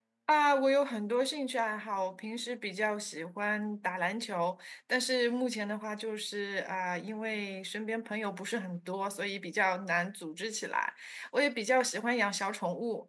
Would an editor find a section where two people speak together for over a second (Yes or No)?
No